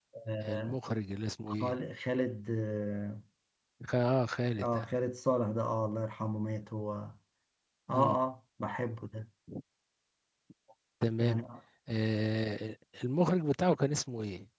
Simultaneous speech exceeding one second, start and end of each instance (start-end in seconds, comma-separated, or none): none